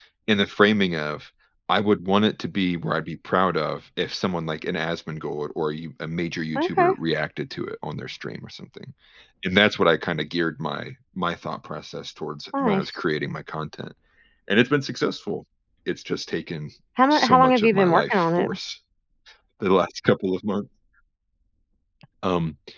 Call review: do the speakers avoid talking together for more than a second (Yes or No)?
No